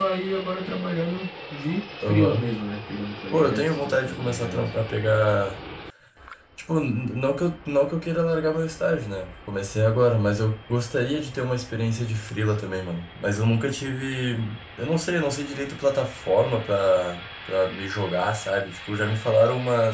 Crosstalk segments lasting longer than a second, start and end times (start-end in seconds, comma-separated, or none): 3.3-4.6